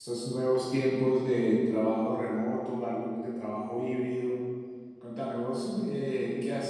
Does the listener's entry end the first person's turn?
No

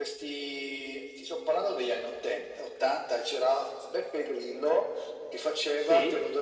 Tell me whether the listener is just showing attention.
Yes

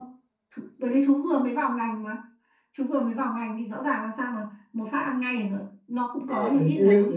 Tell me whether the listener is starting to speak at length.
Yes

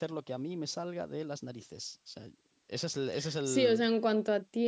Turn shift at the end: Yes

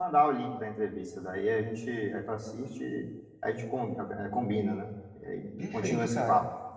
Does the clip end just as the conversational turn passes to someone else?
Yes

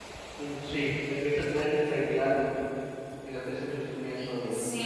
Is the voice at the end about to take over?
Yes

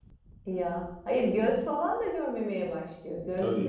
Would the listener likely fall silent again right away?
Yes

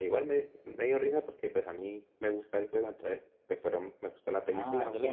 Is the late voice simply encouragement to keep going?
No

